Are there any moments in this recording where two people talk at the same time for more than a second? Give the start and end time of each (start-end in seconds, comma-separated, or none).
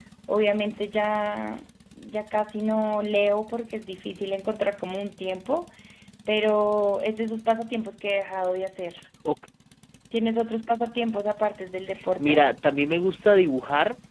none